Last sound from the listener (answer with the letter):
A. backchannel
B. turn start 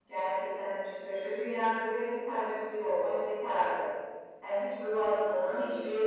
A